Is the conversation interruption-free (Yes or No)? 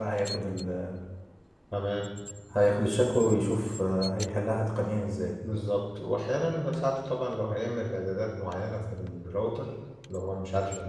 Yes